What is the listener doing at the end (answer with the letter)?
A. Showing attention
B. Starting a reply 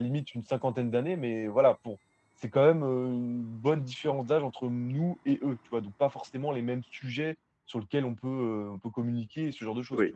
B